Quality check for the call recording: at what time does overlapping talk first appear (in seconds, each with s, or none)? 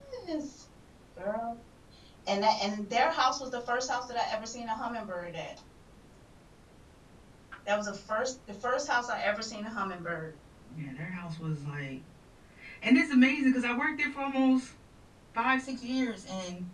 none